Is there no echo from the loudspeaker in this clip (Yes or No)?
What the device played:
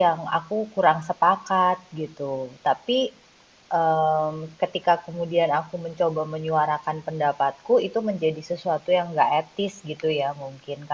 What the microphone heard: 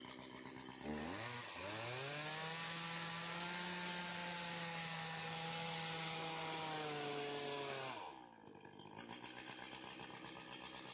Yes